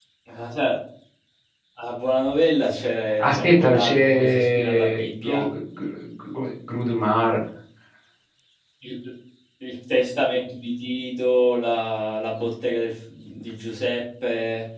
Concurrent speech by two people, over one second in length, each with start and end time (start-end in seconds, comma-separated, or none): 3.2-5.5